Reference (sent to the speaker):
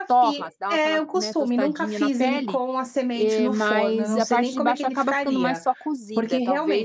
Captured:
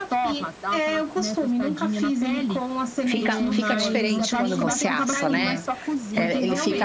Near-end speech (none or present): present